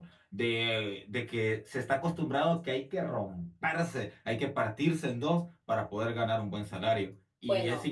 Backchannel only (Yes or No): Yes